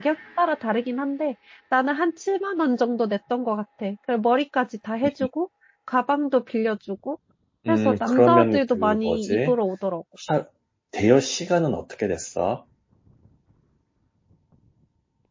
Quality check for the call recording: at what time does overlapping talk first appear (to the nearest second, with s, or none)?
8 s